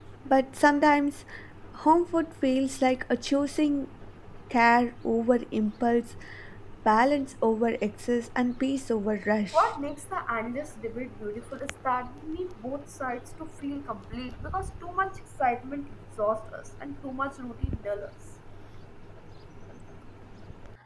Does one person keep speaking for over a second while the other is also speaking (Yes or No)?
No